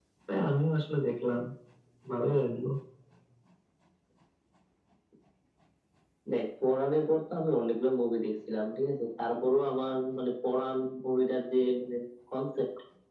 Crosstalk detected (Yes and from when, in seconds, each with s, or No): No